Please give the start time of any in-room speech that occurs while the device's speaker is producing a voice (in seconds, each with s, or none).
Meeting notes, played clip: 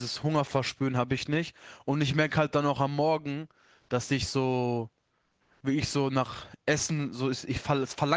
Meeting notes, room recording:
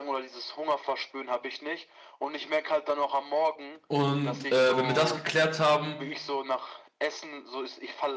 3.9 s